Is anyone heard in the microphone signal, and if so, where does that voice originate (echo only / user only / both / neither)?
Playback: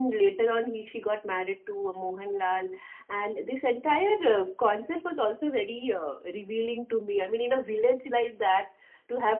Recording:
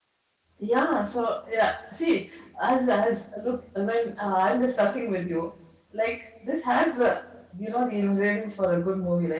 user only